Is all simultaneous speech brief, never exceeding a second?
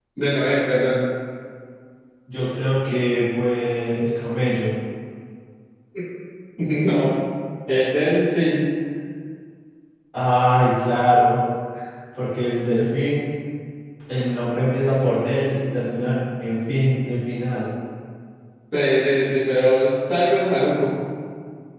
Yes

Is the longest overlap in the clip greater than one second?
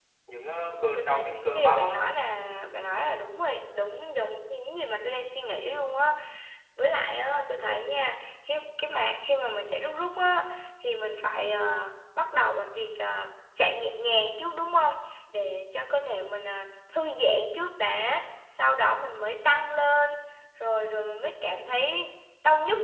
Yes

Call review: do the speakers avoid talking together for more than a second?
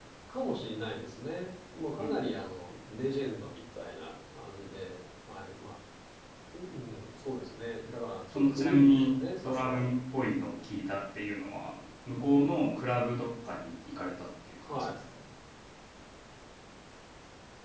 No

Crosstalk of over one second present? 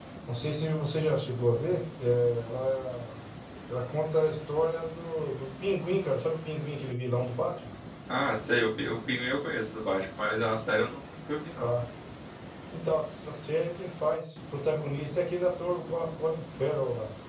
No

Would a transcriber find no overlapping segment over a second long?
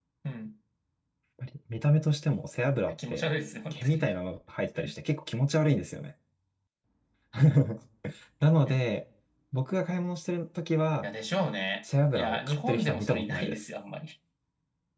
No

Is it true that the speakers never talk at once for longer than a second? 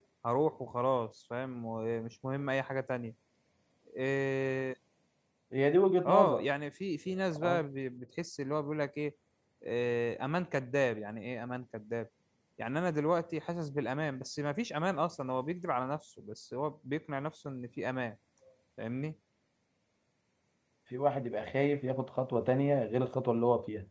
Yes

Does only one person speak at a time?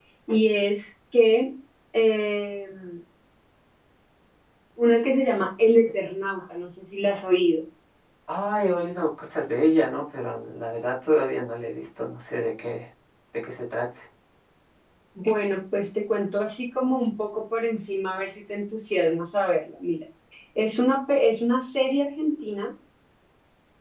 Yes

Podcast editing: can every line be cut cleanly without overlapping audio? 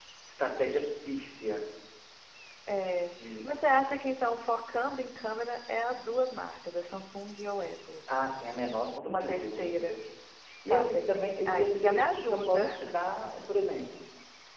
No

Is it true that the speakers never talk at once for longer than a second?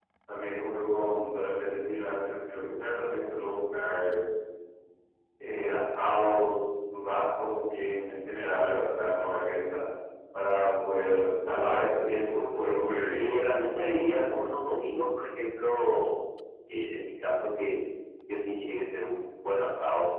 Yes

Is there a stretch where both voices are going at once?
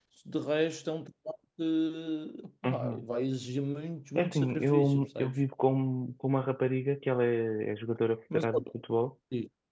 Yes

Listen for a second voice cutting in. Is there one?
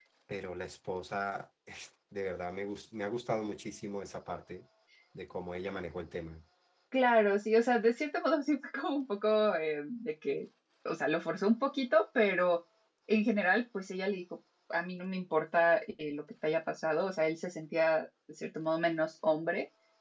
No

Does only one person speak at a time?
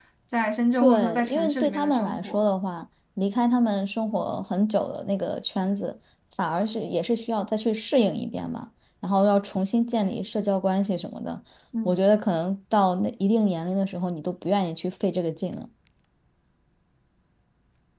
No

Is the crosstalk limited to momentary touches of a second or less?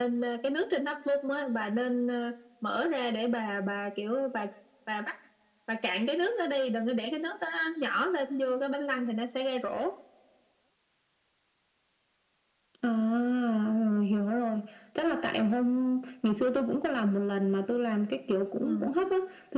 Yes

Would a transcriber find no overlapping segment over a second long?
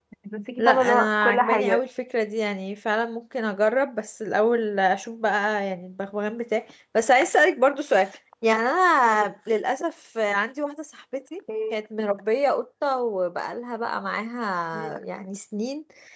No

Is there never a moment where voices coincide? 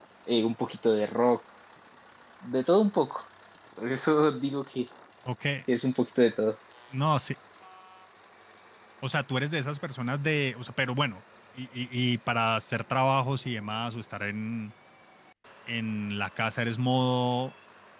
Yes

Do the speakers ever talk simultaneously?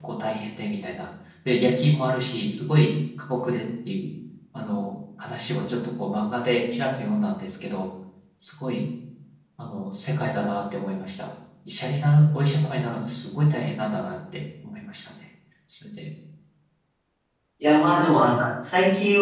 No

